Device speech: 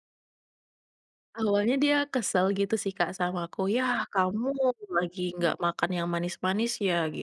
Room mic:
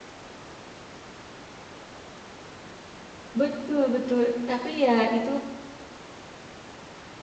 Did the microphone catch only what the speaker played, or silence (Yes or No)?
No